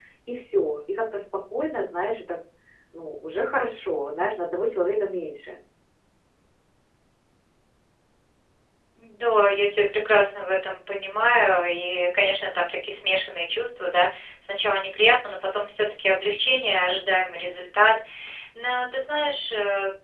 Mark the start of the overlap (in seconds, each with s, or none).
none